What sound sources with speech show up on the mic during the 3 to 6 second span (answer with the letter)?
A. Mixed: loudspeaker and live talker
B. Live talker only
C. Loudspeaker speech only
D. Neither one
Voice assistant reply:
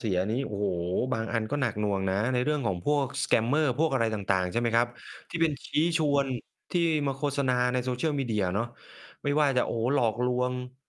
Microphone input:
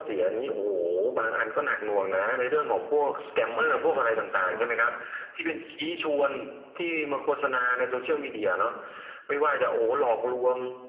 A